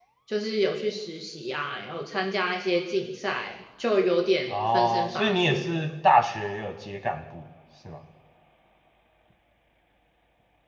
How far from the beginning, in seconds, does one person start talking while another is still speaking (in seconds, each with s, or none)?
4.5 s